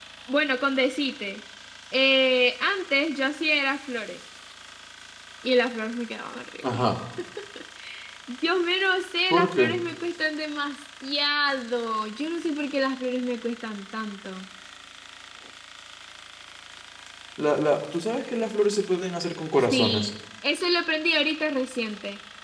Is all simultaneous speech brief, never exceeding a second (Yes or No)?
Yes